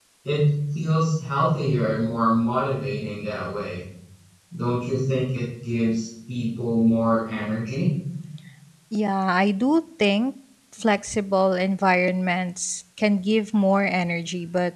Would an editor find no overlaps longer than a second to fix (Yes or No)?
Yes